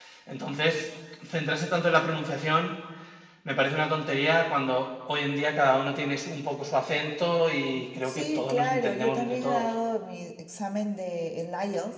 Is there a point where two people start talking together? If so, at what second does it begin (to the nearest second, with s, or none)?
8 s